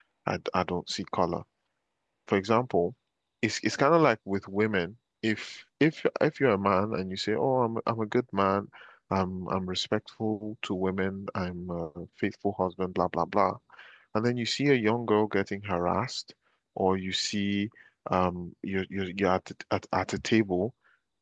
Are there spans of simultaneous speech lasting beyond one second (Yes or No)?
No